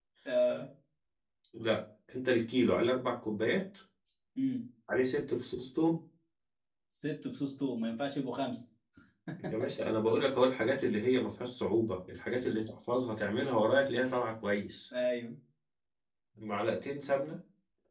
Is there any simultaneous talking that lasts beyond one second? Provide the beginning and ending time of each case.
none

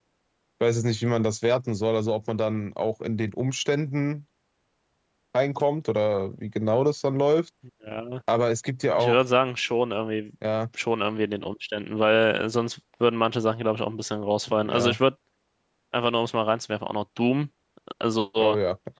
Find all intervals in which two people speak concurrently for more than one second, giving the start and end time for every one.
none

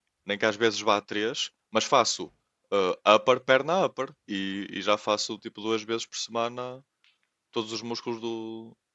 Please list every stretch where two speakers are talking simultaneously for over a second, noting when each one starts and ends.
none

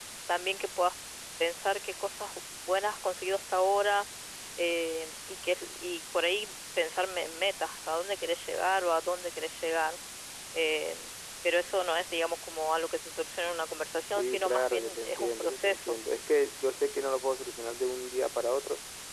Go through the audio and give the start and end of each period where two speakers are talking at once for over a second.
14.2-16.0

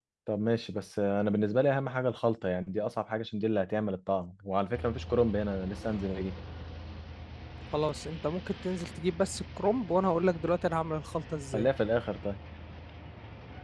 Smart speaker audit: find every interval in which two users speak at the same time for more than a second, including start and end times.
none

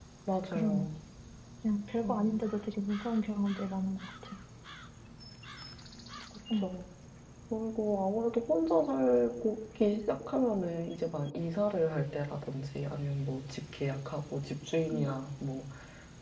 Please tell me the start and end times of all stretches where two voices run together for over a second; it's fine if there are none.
none

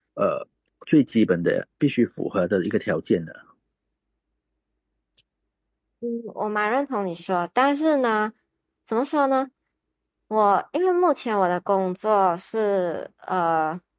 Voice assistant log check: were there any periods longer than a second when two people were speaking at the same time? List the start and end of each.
none

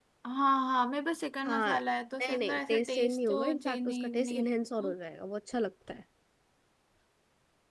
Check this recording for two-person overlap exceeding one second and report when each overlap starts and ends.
2.2-4.4

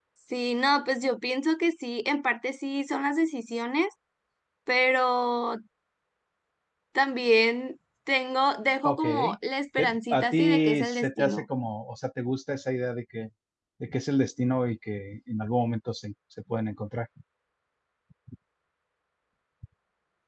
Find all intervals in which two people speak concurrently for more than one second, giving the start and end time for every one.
9.8-11.4

